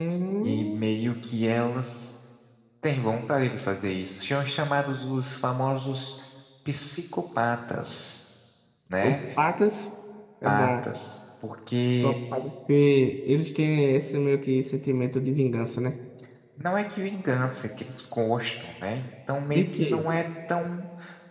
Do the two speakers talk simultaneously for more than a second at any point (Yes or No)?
No